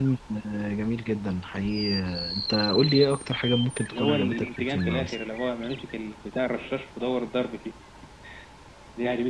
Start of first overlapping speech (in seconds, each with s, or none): 3.9 s